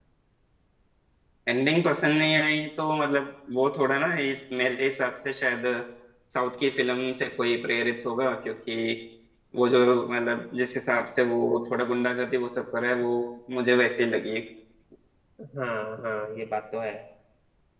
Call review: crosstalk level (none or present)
none